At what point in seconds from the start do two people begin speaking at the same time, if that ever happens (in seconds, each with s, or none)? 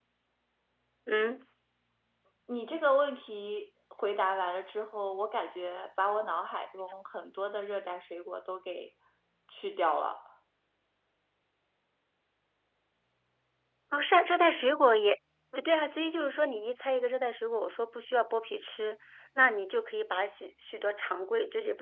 none